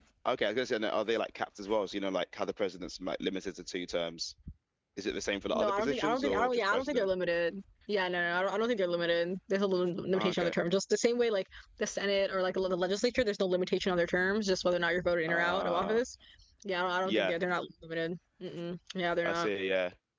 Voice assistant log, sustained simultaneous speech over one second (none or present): present